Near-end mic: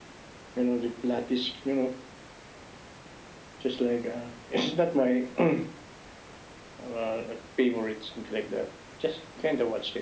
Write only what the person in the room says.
none

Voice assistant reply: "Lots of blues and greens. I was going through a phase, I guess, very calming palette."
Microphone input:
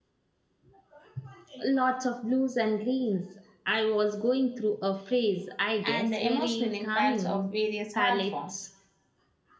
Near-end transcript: and the emotional impacts of various art forms.

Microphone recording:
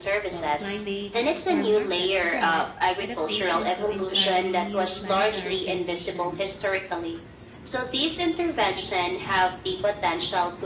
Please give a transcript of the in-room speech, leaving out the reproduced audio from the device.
uh, climate or markets, but adaptation to entirely new planetary condition.

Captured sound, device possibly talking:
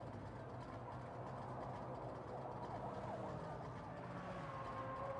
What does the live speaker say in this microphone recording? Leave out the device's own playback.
none

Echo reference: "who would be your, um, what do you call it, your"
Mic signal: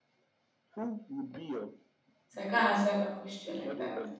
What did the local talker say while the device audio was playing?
So I can't answer that question like that.

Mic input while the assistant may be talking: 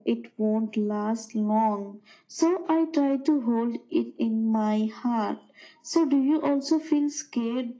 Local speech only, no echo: none

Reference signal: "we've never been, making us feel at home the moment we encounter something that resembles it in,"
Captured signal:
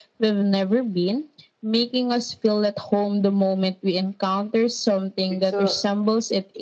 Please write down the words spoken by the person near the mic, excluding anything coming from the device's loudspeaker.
It's a

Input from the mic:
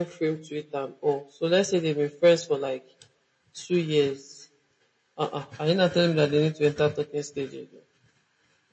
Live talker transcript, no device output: none

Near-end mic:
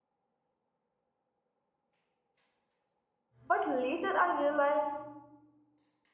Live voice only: but later I realized

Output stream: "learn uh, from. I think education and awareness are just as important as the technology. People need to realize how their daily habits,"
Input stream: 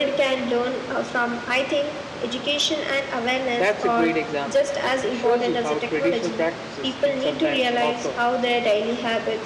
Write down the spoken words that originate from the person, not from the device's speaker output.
That's a great example. It shows you how traditional practices can sometimes offer

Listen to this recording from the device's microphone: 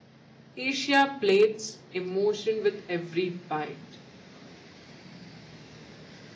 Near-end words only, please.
Asia plates emotion with every bite.

